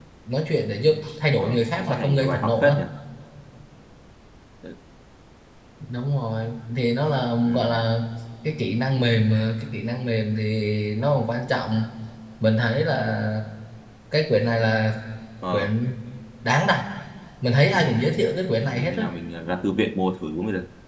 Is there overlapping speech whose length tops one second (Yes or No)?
Yes